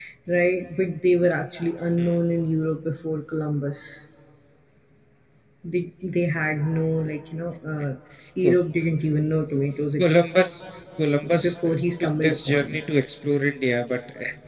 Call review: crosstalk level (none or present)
present